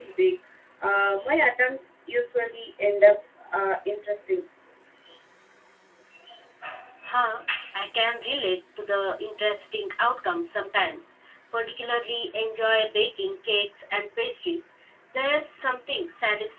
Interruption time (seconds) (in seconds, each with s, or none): none